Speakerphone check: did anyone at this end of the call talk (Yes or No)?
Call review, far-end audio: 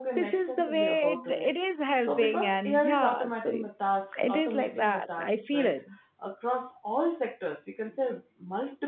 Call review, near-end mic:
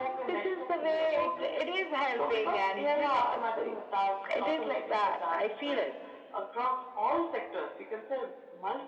No